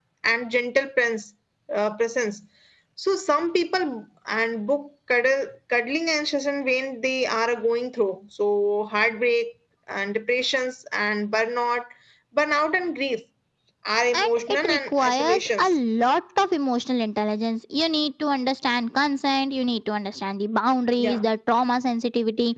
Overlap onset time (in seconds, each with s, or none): 14.2 s